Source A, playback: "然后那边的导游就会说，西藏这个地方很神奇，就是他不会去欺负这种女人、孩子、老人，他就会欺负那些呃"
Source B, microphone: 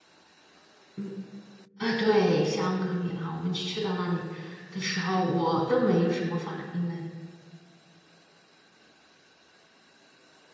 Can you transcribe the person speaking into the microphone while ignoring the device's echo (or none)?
嗯。啊，对，香格里拉，我们去到那里的时候，我都没有什么反应呢，